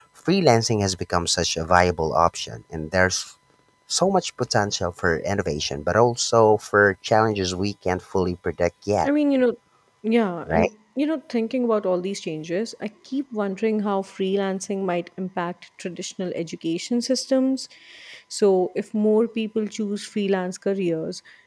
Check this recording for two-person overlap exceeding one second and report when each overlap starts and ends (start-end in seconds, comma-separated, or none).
none